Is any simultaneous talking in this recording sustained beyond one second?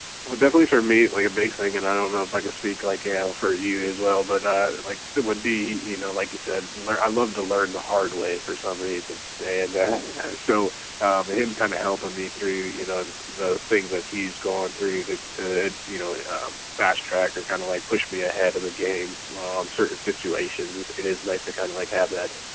No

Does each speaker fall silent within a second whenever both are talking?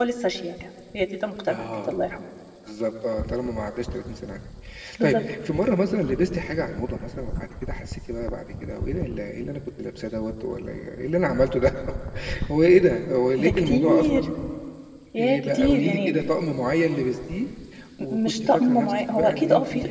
No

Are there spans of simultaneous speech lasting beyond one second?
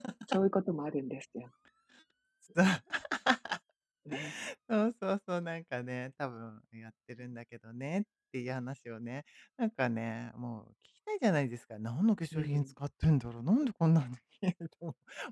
No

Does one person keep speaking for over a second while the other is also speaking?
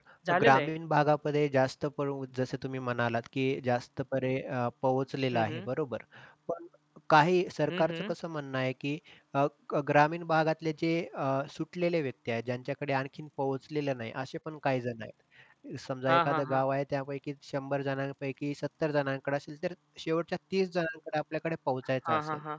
No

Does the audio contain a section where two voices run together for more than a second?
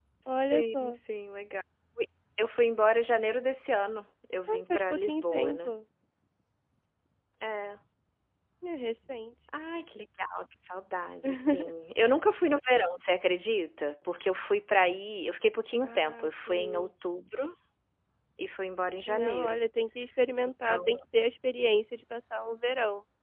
Yes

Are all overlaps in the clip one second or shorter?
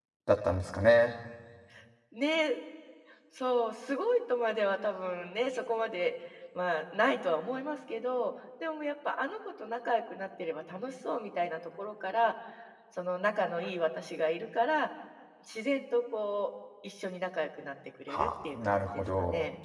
No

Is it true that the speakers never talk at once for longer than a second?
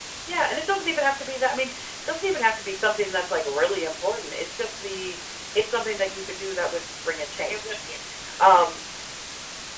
Yes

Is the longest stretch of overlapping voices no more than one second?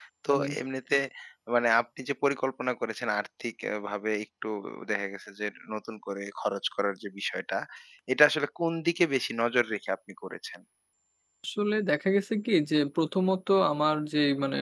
Yes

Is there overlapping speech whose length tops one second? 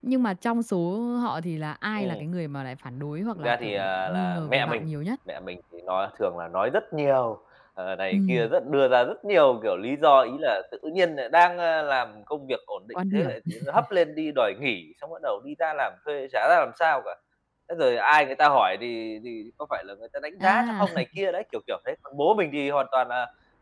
Yes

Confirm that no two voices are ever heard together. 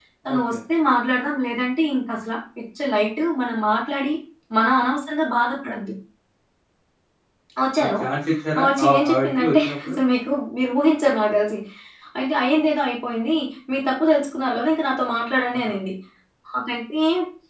No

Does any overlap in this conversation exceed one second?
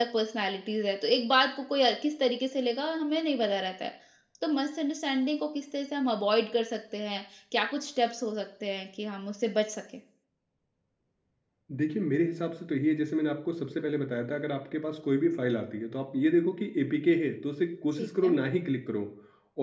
No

